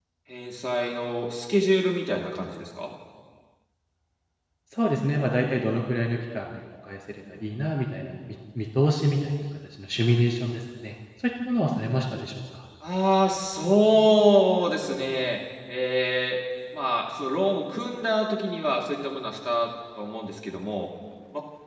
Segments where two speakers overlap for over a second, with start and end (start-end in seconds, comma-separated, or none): none